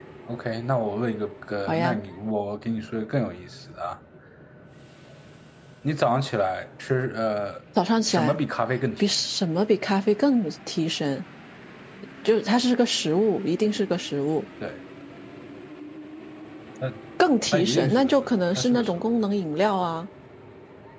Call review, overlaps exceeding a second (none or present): present